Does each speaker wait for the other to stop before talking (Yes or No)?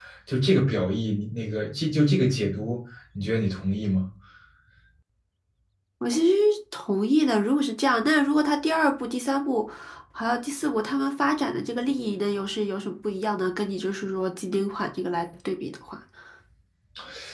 Yes